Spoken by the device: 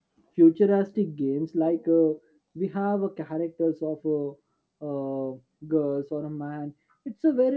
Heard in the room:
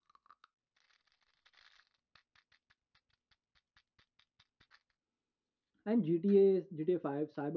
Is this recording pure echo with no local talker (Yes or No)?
No